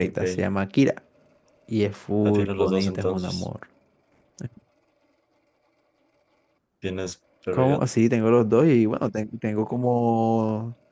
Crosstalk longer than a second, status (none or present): present